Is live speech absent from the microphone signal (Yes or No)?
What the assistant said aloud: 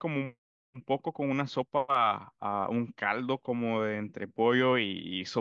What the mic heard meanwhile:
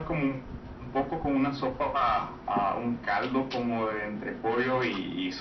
Yes